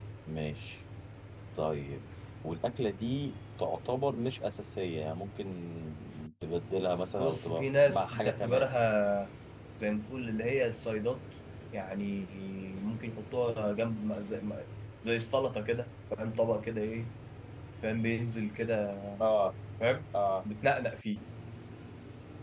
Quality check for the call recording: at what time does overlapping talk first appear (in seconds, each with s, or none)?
7.2 s